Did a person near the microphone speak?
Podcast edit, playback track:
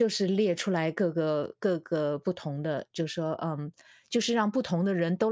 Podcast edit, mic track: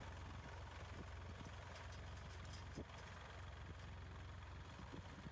No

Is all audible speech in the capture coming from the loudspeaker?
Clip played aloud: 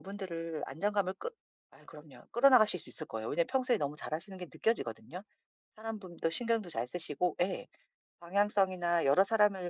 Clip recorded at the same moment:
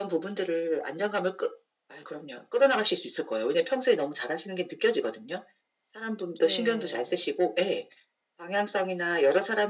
No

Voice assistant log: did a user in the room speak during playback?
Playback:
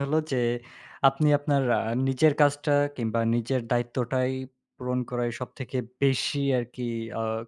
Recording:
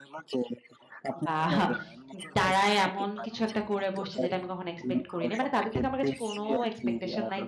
Yes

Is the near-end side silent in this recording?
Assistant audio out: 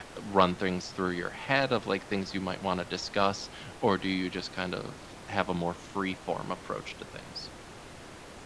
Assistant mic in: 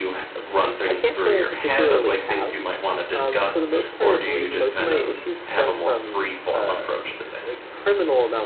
No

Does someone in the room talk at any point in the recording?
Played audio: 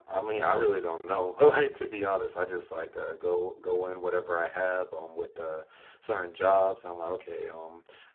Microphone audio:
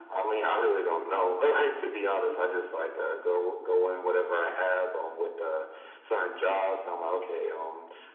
No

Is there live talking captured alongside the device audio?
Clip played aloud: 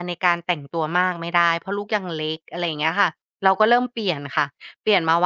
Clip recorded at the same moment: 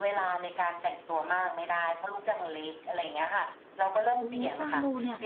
Yes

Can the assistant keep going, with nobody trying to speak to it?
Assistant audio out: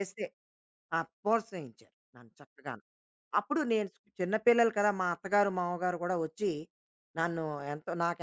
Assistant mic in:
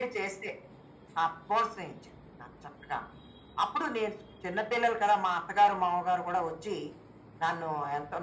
Yes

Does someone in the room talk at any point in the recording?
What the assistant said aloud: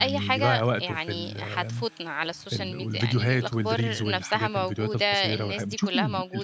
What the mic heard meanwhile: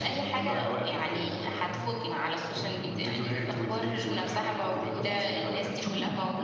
No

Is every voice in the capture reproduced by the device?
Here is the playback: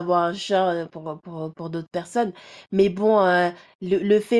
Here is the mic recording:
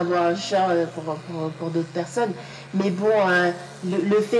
Yes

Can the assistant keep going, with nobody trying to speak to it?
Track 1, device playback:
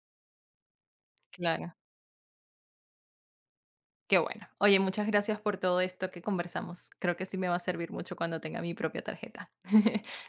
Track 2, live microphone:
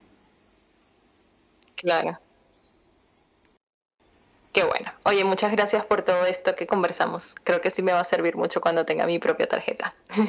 Yes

